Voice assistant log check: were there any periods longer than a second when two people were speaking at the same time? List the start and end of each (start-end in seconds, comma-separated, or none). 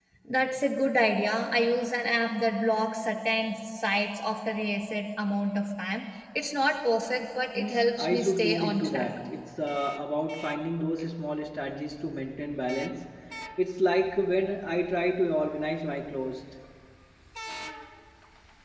7.5-9.1